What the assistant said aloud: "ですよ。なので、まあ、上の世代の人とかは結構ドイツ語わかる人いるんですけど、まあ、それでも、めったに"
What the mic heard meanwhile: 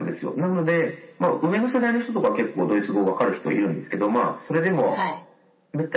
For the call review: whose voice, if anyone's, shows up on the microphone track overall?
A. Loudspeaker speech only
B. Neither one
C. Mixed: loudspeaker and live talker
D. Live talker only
C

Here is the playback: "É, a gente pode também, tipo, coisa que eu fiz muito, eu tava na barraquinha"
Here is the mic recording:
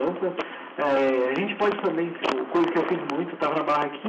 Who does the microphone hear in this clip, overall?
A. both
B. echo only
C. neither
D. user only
B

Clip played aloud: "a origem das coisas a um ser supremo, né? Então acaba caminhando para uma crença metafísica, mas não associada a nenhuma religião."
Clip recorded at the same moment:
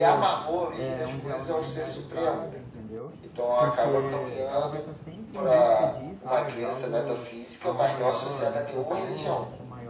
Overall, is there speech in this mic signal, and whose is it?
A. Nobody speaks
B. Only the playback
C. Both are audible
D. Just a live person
C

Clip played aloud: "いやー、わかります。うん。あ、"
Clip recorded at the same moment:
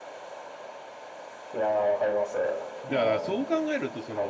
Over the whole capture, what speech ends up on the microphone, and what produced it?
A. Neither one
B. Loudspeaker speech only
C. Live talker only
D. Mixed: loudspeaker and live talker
D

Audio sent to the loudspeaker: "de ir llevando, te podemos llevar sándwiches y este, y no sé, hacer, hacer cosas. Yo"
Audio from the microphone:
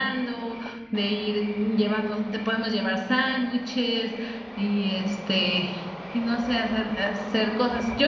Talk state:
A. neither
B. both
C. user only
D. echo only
D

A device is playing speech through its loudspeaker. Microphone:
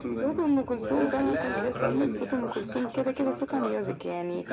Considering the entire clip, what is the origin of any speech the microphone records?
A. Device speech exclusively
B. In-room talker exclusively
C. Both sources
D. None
C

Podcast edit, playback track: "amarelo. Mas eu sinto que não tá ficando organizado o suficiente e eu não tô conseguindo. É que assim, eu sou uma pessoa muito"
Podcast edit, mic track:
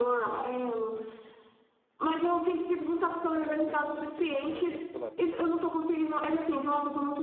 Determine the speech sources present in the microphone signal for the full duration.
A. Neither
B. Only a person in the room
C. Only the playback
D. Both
D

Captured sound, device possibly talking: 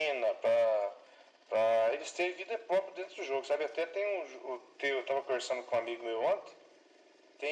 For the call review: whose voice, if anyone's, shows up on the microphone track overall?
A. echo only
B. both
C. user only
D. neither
A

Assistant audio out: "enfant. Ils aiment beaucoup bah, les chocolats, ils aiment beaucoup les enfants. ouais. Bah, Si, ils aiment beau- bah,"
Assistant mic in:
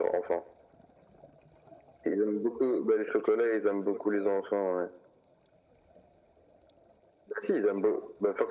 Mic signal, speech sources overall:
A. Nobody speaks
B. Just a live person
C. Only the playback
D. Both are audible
C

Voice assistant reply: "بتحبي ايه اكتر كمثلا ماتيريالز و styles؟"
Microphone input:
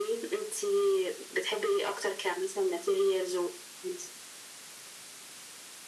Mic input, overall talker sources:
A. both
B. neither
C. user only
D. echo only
D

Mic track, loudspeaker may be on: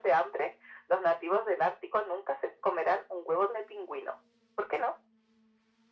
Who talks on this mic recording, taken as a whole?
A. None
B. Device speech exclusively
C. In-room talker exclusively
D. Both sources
B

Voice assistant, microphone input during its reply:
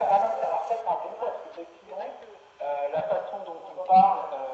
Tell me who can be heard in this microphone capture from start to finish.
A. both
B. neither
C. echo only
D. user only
C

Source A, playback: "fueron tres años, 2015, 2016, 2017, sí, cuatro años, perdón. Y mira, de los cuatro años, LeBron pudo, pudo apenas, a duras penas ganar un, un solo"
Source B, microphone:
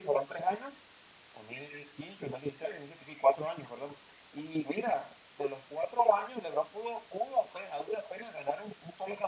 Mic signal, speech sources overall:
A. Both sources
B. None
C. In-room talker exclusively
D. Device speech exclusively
D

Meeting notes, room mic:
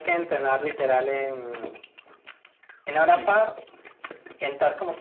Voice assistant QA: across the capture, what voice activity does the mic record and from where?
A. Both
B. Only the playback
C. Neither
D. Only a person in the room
A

